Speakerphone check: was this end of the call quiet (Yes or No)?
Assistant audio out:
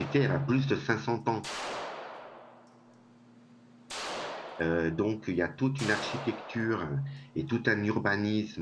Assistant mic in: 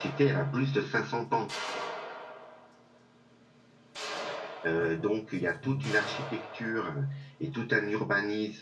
No